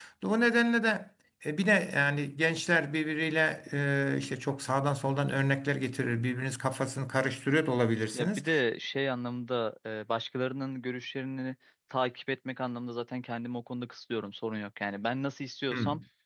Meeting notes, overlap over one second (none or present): none